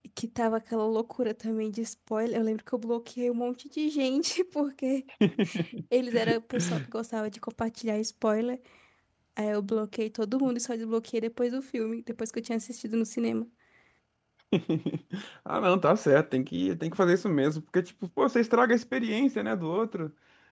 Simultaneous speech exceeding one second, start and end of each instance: none

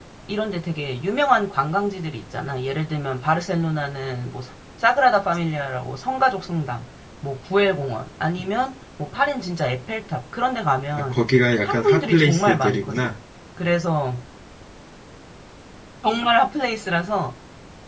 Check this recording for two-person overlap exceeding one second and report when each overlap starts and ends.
11.7-13.1

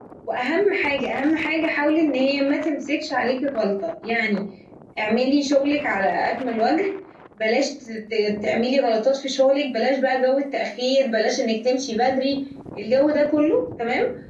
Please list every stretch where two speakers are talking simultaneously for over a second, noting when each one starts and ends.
none

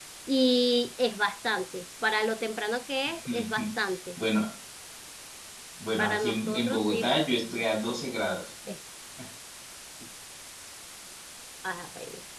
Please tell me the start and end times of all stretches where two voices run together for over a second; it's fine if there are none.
6.0-7.4

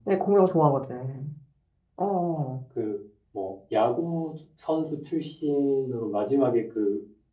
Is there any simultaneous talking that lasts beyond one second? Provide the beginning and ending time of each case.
none

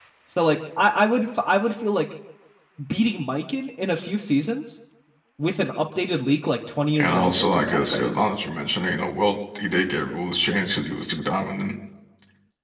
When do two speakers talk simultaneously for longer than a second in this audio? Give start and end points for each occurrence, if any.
7.0-8.2

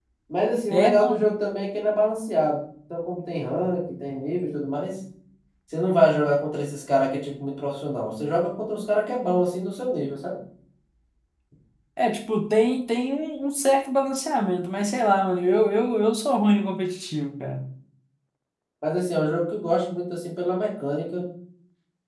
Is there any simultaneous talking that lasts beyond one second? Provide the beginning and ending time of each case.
none

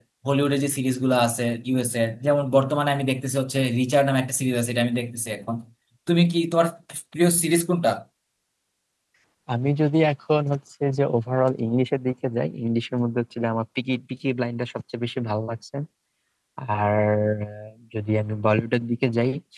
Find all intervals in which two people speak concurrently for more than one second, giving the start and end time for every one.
none

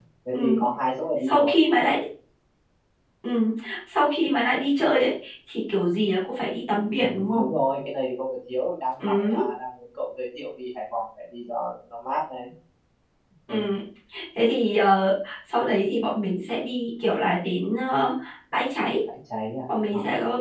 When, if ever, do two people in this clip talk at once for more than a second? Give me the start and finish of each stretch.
none

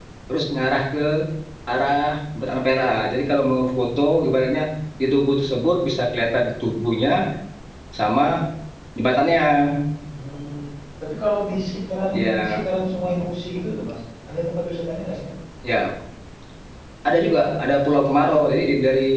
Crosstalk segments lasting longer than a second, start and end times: none

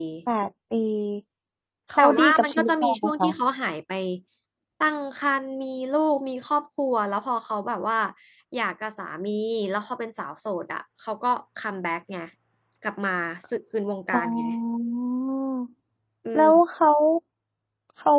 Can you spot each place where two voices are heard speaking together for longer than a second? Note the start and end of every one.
2.0-3.3

